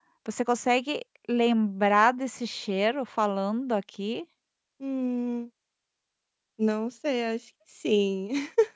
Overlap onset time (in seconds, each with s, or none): none